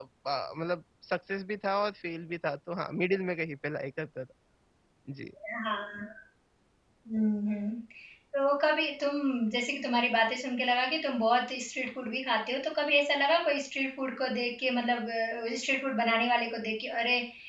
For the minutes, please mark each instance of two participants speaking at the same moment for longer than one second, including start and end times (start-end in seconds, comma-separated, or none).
none